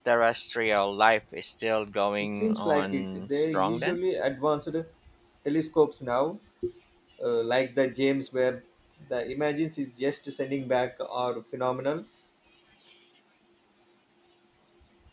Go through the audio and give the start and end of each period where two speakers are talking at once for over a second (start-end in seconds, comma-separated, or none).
2.3-4.0